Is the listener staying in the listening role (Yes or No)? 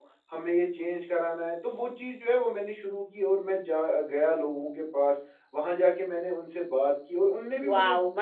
No